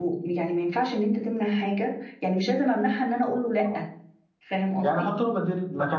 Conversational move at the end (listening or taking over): taking over